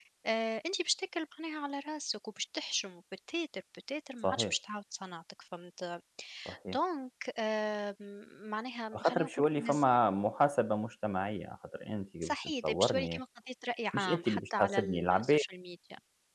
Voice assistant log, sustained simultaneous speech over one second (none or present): present